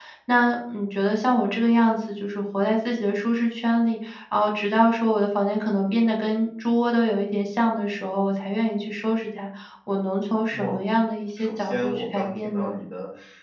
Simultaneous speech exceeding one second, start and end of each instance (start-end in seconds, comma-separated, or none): 11.4-12.7